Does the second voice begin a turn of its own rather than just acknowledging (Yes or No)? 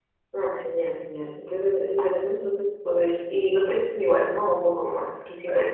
Yes